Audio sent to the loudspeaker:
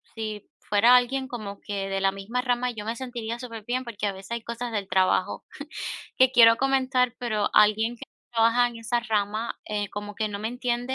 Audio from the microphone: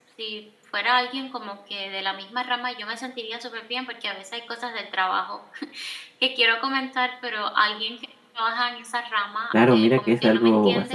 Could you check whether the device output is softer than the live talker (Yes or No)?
Yes